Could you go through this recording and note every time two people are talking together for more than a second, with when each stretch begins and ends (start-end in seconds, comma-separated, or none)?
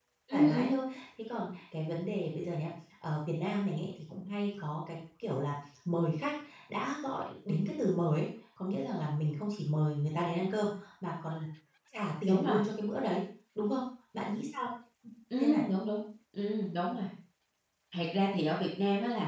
none